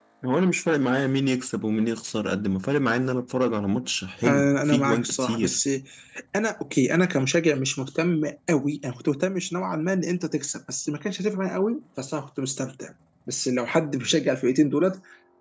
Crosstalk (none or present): present